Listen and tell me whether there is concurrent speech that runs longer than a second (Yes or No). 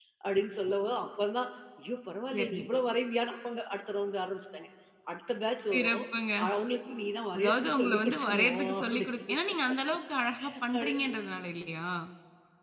Yes